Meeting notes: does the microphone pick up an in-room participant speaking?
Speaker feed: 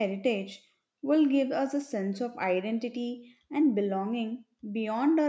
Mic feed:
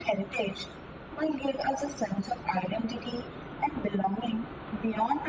No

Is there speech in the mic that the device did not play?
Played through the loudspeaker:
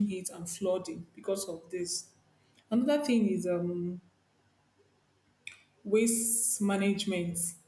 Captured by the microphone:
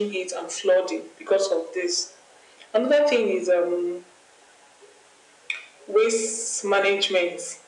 No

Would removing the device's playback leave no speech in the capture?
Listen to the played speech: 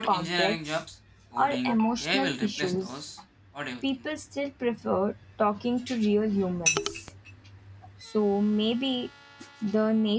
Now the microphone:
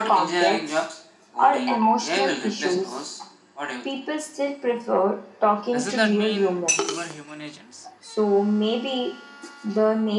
No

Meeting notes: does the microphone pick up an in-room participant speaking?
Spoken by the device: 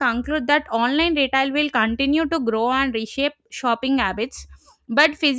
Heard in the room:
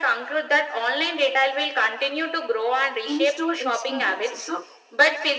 Yes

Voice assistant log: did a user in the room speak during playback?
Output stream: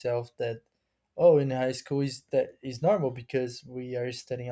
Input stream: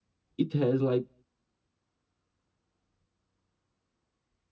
Yes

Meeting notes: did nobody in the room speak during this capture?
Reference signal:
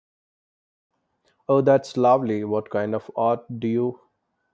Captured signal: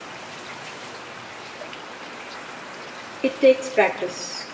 No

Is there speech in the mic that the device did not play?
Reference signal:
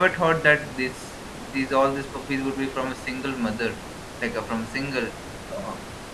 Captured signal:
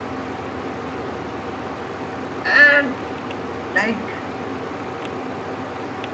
Yes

